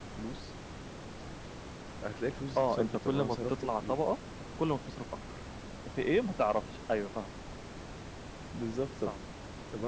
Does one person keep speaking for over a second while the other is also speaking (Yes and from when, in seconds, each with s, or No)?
Yes, from 2.6 s